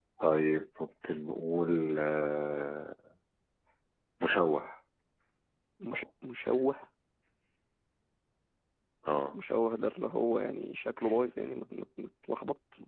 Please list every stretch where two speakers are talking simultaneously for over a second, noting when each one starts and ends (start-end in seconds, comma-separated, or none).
none